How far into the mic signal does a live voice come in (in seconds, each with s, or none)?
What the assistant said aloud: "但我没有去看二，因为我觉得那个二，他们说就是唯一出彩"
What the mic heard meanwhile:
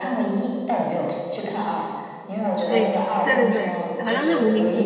2.6 s